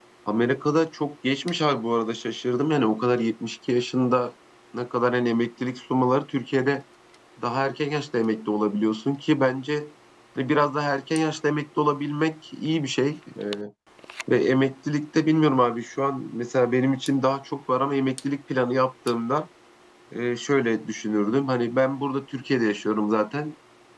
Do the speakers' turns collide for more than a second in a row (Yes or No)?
No